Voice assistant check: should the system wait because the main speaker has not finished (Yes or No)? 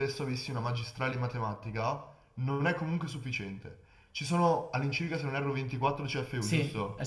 No